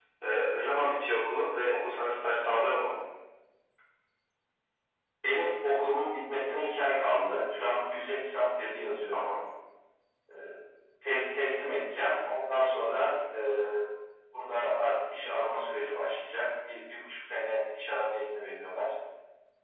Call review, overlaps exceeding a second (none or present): none